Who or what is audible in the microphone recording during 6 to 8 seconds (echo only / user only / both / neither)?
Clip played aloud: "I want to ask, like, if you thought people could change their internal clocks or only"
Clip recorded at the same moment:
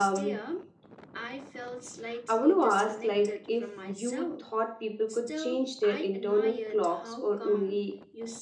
both